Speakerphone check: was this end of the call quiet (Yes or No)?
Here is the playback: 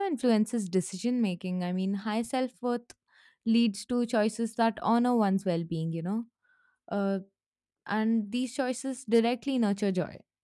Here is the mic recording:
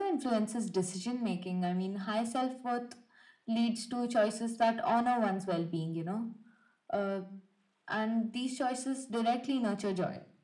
Yes